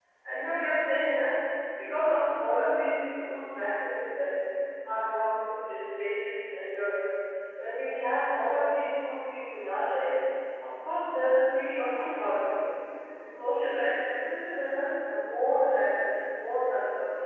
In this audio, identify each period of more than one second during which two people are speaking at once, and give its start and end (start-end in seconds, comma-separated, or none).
none